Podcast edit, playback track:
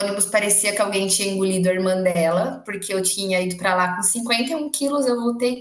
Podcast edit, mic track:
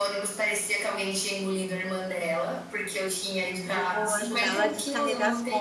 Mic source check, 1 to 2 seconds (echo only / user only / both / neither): echo only